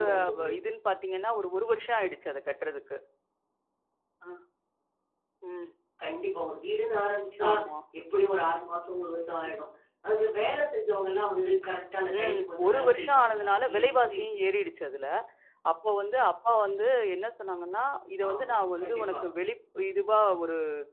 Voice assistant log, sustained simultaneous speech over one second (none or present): present